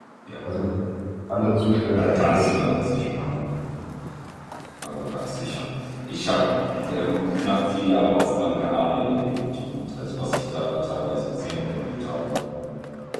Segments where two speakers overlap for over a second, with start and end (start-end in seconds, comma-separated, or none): 1.9-3.2